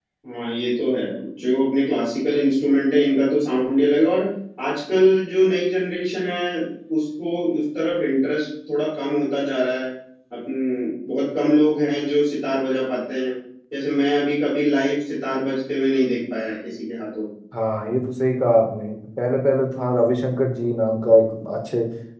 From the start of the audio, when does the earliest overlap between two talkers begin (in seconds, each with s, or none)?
none